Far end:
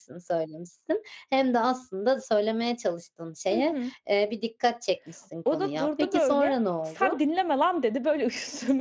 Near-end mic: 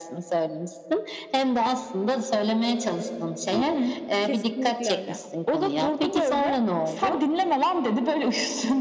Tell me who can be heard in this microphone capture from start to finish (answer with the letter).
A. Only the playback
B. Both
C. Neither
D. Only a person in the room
B